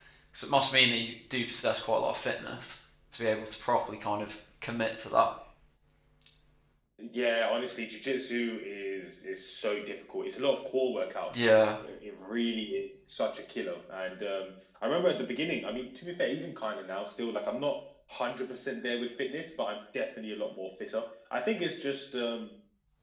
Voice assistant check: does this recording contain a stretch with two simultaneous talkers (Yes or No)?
No